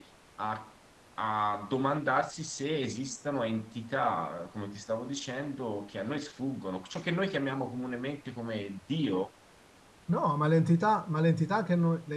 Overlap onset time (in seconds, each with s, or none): none